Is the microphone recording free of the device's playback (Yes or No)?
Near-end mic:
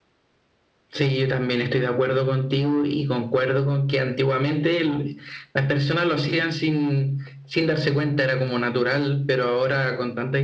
No